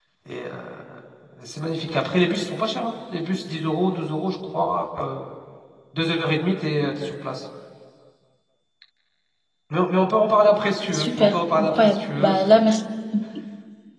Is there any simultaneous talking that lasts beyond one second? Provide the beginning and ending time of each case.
10.9-12.3

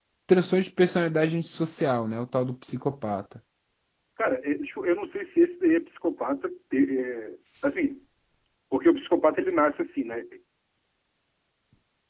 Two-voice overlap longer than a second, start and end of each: none

